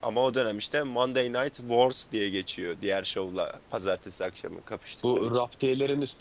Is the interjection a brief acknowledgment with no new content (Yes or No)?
No